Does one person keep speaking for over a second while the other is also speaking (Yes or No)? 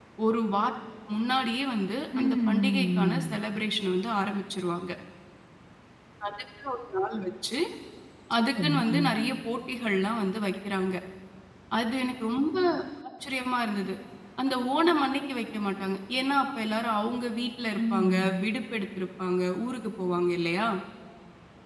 Yes